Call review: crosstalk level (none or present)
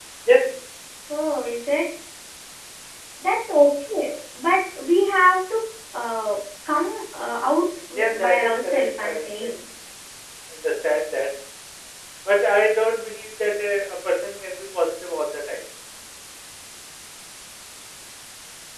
present